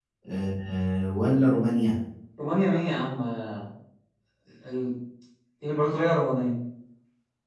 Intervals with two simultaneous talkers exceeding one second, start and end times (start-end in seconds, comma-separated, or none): none